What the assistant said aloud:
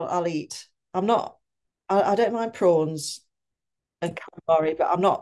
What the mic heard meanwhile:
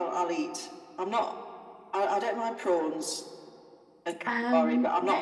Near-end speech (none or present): present